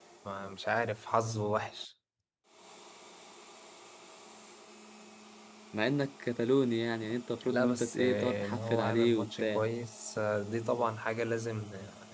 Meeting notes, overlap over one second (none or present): present